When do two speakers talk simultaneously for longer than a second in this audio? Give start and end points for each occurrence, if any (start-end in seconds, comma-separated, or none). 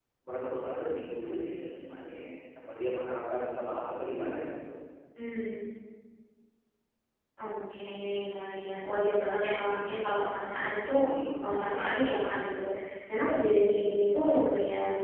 none